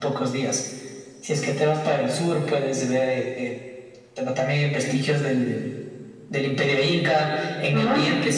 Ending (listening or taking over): listening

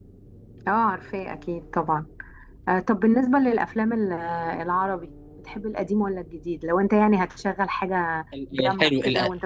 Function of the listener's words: taking over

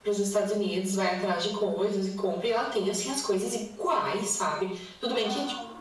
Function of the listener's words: listening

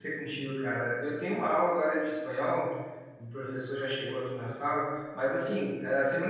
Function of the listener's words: listening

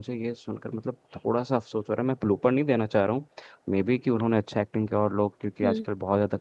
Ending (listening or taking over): listening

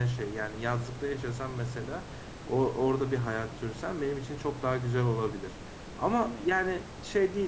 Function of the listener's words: listening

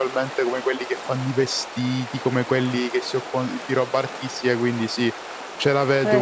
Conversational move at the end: taking over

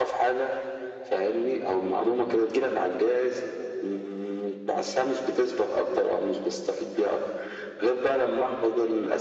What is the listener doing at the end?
listening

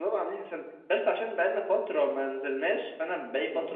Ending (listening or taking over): listening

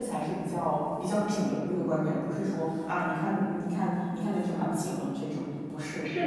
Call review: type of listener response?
taking over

